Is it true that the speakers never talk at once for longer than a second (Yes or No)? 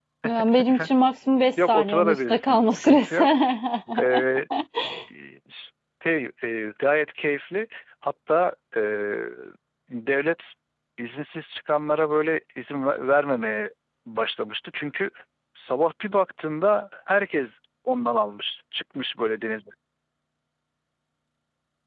No